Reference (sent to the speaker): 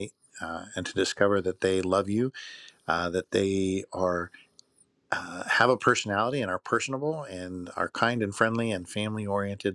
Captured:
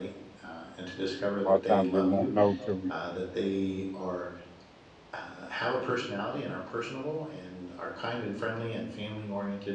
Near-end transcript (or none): A lot of times you won't know till we,